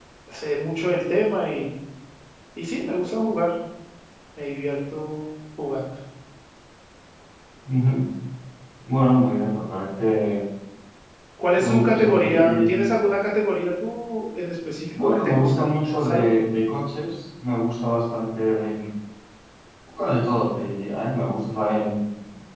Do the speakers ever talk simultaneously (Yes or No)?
Yes